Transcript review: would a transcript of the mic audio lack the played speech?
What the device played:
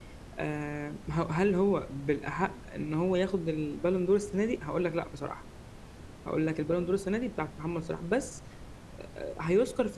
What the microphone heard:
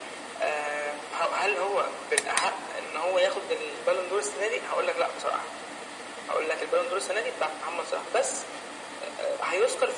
No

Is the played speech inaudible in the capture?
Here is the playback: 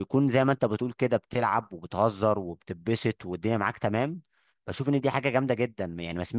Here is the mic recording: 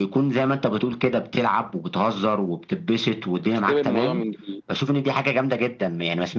No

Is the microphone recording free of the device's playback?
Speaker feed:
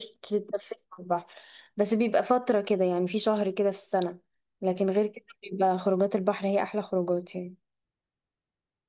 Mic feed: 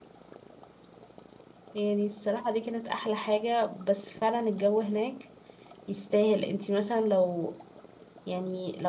Yes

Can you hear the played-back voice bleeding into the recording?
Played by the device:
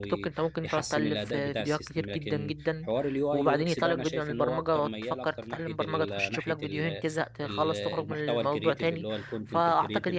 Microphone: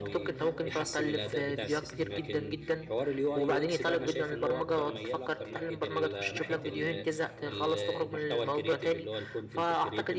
Yes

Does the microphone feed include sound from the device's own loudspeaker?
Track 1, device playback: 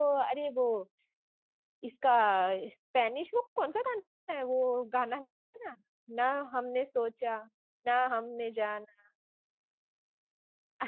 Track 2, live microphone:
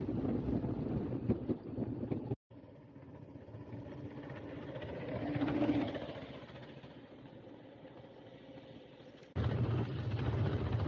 No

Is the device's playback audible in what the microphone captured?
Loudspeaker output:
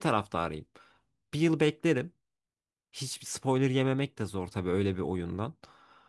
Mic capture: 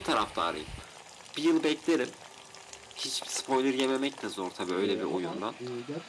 Yes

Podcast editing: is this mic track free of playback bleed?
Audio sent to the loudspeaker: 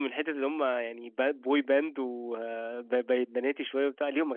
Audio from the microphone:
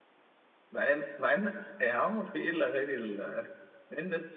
Yes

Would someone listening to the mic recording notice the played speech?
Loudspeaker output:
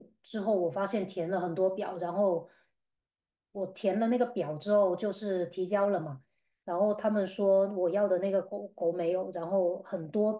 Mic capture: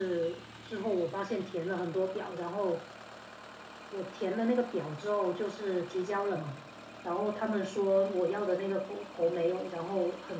Yes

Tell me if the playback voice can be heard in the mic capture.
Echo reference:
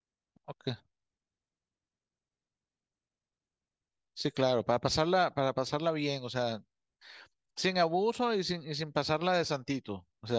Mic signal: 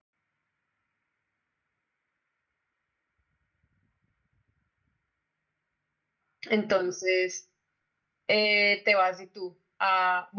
No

